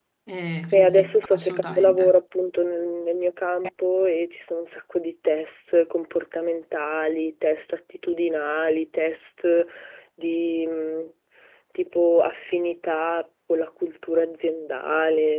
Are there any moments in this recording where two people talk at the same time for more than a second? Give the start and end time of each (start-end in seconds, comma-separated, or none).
0.7-2.2